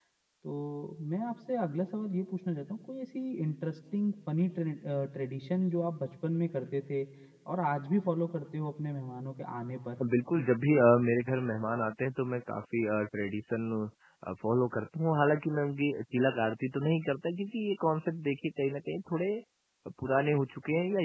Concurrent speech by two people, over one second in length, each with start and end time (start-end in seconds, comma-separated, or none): none